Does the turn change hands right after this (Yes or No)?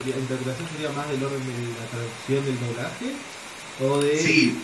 Yes